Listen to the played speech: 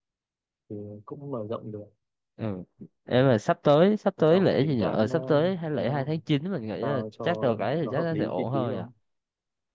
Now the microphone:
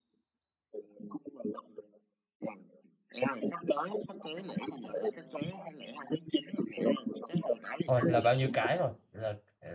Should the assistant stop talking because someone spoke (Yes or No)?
Yes